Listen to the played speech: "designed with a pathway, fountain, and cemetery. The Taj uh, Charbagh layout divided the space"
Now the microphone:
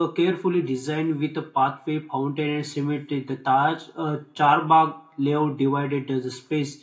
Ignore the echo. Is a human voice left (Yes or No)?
No